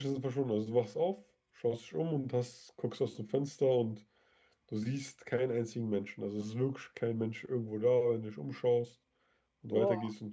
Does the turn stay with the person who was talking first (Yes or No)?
Yes